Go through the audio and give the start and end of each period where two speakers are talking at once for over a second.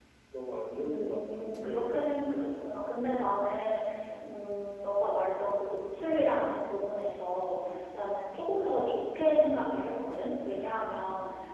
0.8-2.7

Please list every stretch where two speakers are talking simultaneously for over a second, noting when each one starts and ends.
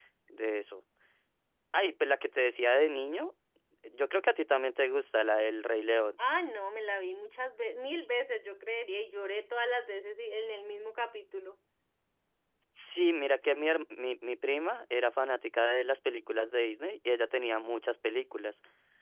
none

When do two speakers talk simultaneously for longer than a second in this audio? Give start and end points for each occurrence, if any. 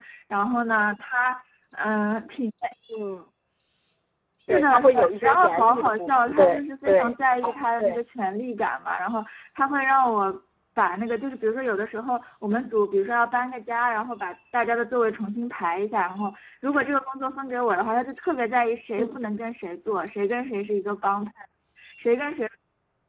4.5-7.1

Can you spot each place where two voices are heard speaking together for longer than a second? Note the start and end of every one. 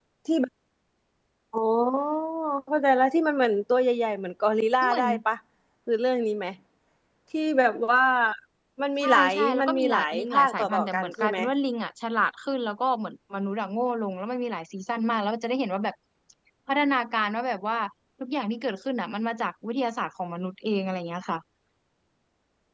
9.0-11.4

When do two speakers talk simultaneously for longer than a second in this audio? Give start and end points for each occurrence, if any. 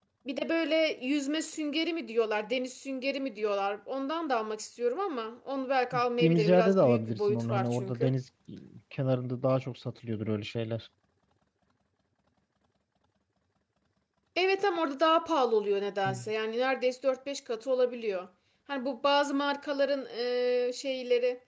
5.9-8.1

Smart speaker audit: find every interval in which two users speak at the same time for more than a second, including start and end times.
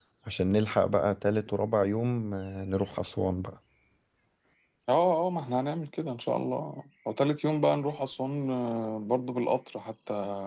none

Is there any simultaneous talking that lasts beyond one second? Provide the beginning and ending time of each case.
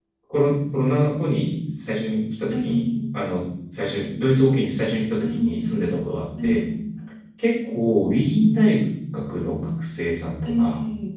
none

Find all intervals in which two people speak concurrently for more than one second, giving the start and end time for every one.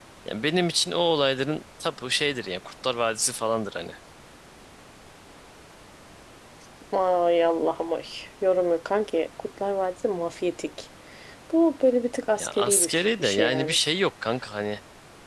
12.4-13.8

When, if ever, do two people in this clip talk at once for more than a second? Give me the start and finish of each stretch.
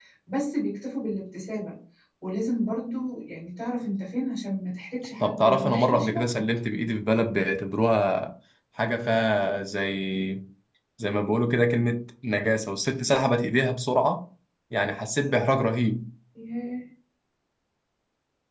5.2-6.4

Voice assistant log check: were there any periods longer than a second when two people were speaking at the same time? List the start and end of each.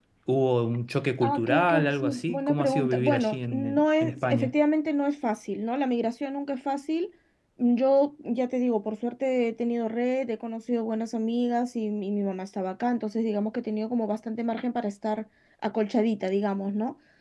1.2-4.5

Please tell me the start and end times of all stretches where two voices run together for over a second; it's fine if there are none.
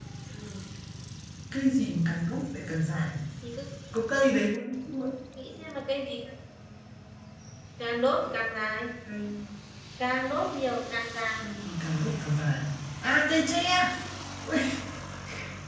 none

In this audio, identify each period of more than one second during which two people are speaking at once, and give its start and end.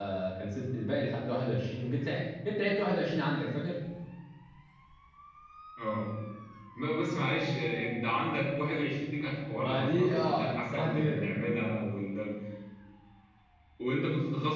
9.6-11.3

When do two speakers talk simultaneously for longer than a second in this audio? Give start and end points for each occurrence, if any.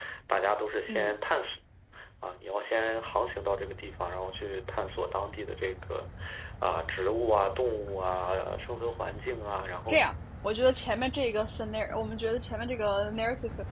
none

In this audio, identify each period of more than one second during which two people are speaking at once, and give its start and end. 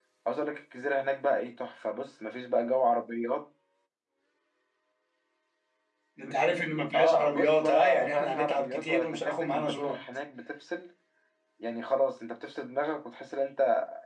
6.9-10.0

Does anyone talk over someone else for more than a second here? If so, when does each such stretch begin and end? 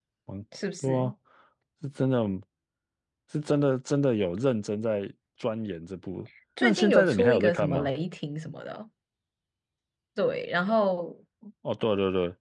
6.6-7.9

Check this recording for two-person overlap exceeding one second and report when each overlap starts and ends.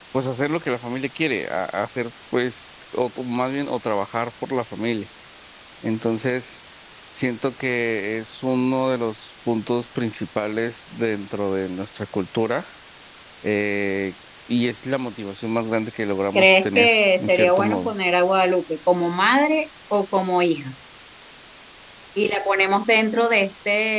16.4-17.9

